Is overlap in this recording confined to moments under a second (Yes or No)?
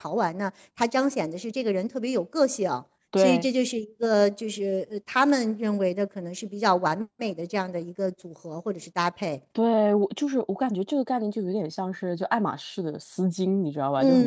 Yes